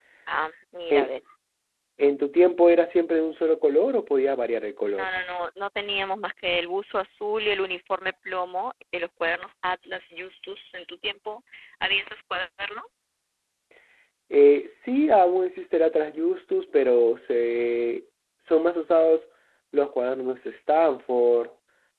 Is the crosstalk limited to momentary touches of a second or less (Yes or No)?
Yes